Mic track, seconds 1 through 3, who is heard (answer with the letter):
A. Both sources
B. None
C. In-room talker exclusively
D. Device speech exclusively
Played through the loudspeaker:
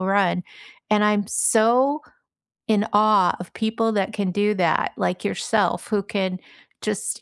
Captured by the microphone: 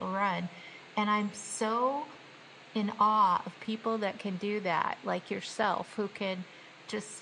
D